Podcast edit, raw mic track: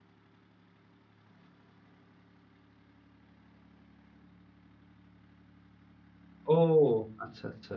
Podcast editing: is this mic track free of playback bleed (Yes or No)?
Yes